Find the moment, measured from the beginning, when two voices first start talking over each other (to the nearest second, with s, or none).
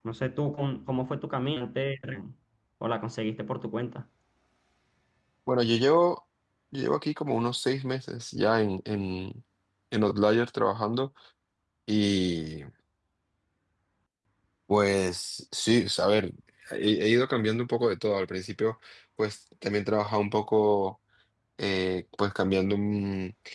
none